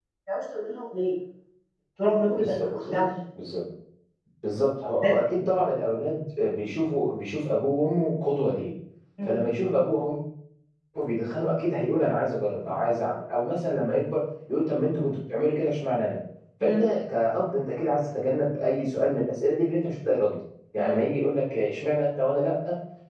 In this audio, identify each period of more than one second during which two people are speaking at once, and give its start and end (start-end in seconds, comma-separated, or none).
none